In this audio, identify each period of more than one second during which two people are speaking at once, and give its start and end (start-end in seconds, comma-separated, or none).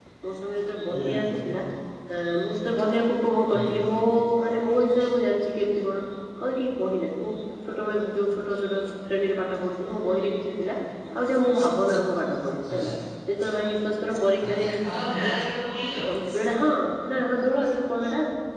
none